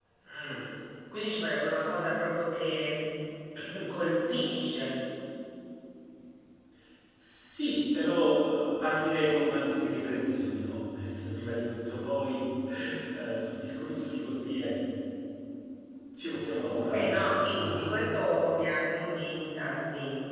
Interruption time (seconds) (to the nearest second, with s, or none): 17 s